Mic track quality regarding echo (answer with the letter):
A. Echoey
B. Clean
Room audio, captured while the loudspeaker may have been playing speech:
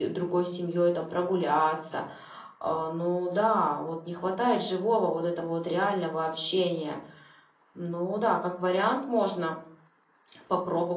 B